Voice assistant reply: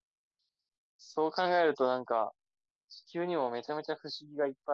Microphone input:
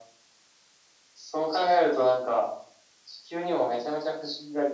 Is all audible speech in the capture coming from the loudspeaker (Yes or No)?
Yes